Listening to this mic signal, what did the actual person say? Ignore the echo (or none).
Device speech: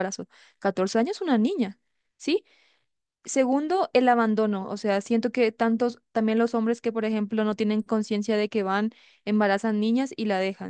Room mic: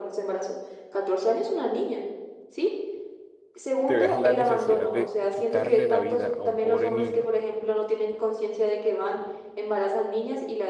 te veas en la necesidad de quitarle la vida a un pobre niño